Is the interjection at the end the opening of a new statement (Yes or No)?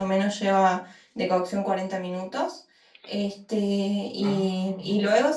No